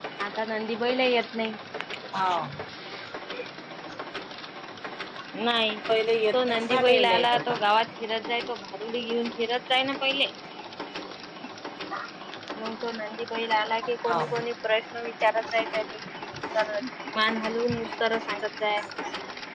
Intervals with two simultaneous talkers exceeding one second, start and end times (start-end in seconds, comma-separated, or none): 6.3-7.6